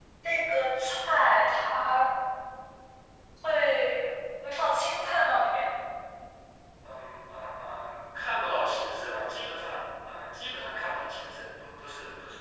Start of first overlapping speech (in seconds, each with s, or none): none